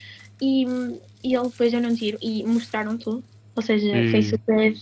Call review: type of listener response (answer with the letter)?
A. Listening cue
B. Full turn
A